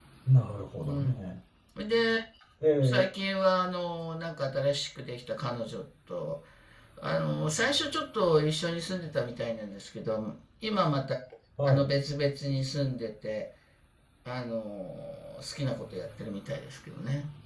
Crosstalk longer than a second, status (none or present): none